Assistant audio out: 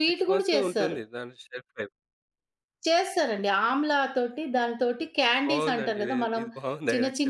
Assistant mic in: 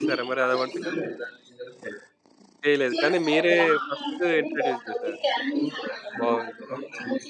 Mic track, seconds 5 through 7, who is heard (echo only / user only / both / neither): both